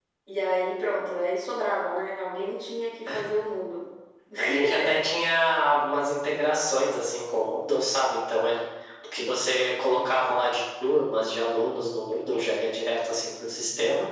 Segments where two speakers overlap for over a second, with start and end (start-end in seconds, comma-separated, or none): none